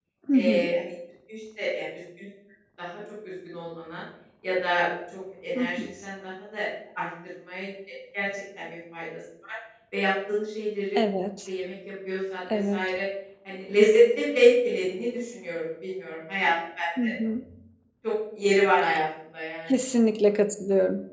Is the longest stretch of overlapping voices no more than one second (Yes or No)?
Yes